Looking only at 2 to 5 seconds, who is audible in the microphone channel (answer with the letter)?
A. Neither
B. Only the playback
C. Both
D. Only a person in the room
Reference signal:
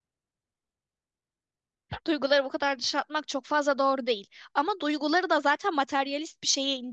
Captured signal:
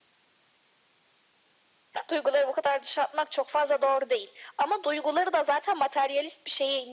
B